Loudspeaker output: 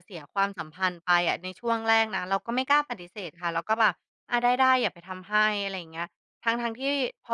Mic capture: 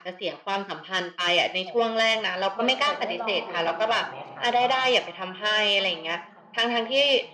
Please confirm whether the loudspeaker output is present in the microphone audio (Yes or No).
Yes